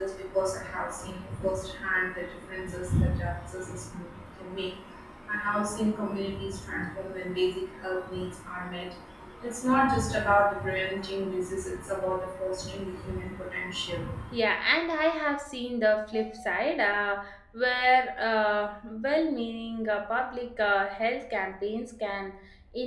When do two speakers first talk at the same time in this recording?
none

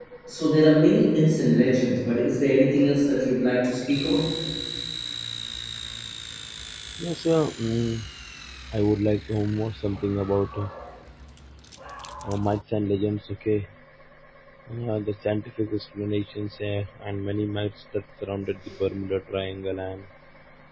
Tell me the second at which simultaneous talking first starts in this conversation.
none

